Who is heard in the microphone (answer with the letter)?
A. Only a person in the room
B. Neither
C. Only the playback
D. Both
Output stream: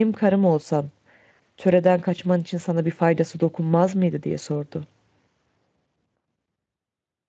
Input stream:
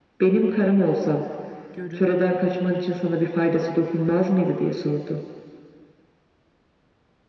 D